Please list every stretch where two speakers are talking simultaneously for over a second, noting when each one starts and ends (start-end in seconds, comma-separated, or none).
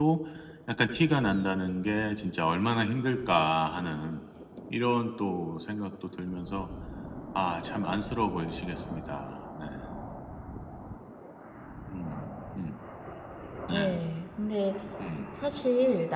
none